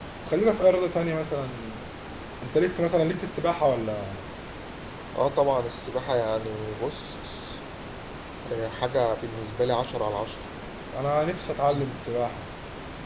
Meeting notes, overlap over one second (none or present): none